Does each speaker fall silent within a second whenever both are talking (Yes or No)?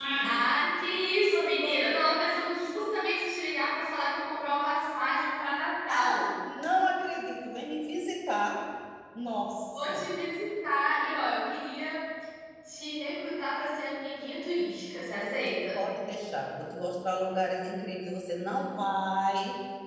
Yes